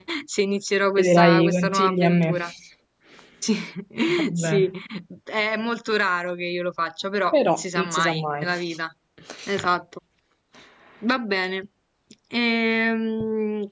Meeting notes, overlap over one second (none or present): present